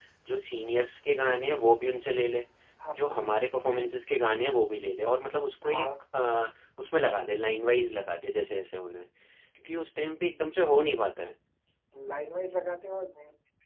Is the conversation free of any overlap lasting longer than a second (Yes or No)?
Yes